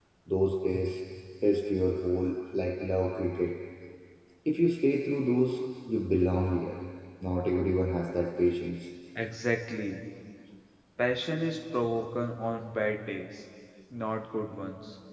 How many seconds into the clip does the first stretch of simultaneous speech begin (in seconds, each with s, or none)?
none